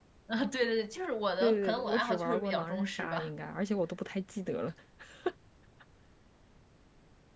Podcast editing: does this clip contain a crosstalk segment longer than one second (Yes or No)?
Yes